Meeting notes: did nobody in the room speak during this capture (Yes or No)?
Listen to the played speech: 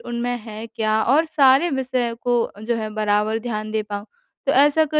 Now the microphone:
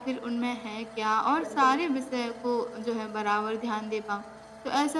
No